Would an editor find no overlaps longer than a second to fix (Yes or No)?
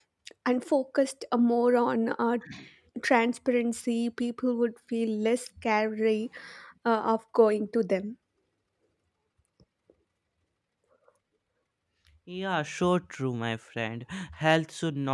Yes